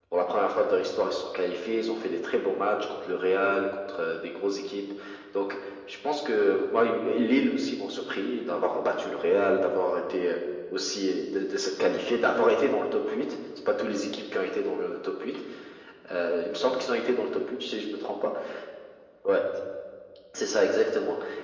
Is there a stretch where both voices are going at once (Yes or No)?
No